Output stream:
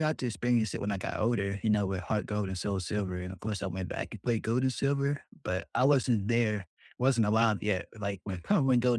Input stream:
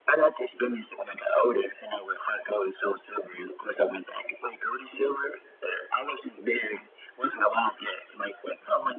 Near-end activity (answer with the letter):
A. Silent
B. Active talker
A